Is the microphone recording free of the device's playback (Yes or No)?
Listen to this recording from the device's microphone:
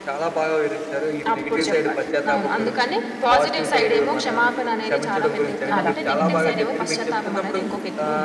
No